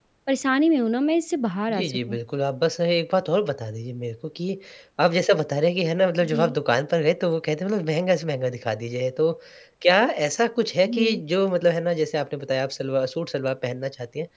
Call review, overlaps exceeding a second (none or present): none